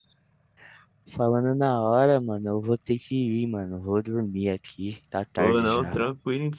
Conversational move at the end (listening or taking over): taking over